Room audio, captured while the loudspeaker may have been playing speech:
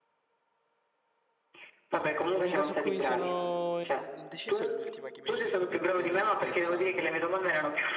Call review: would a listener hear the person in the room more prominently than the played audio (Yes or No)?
No